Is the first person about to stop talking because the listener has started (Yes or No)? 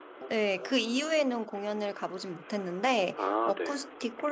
No